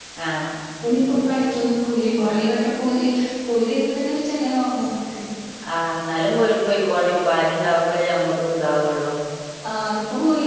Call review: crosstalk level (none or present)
none